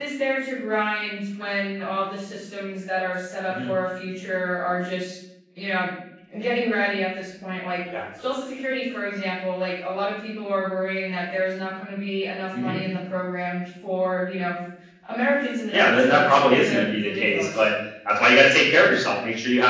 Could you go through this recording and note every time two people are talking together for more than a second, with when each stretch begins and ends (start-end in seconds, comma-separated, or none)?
15.7-17.7